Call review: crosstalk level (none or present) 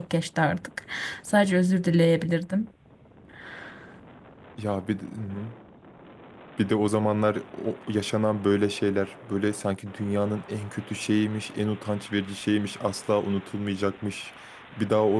none